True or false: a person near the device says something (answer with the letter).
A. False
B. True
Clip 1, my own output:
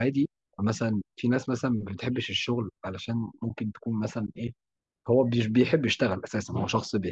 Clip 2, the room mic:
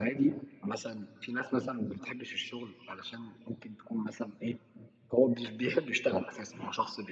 A